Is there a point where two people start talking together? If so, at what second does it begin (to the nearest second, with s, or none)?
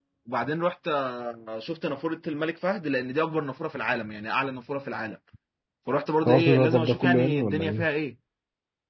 6 s